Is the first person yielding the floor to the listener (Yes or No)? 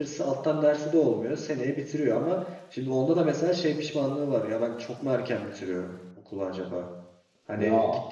No